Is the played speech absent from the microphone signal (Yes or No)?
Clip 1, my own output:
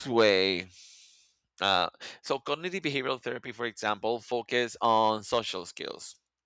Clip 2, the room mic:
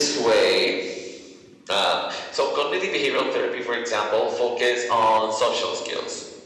No